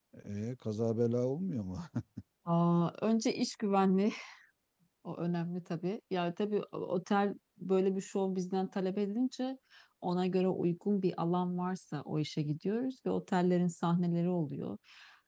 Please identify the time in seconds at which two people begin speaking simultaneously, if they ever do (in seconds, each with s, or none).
none